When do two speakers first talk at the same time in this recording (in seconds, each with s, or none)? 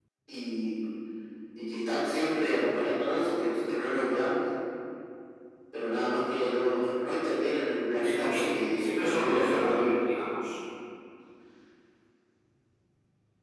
8.0 s